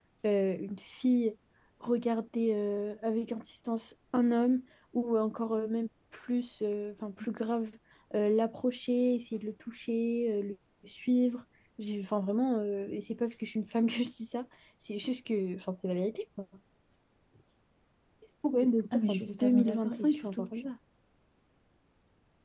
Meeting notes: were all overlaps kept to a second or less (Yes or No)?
No